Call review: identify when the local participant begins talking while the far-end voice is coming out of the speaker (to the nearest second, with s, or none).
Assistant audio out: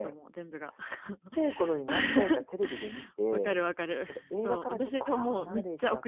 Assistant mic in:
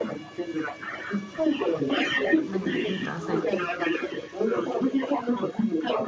2 s